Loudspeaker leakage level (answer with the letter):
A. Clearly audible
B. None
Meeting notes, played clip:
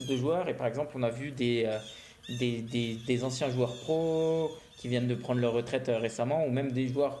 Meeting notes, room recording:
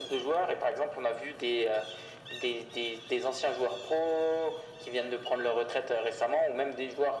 A